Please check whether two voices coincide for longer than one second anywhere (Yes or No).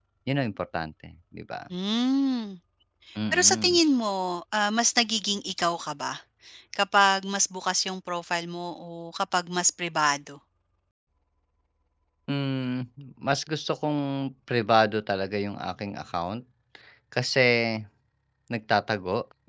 No